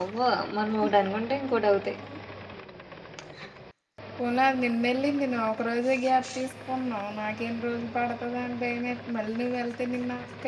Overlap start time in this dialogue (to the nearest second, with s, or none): none